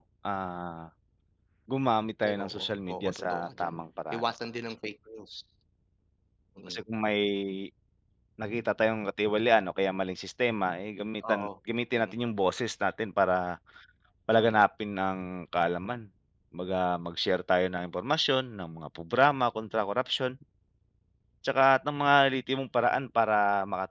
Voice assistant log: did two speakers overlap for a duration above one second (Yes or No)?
Yes